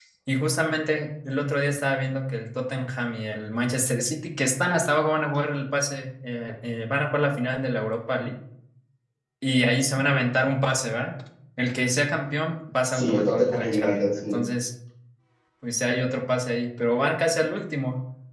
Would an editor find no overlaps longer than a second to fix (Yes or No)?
No